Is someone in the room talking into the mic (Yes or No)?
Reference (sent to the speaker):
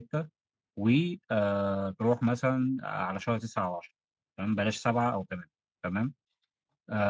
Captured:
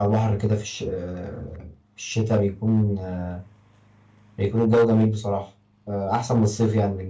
Yes